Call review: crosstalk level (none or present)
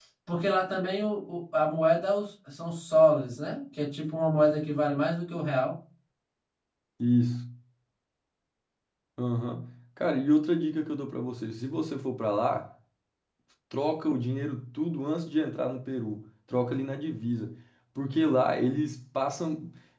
none